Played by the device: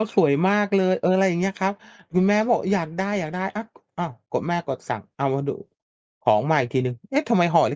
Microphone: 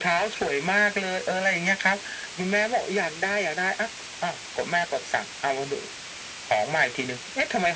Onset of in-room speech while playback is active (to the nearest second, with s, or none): none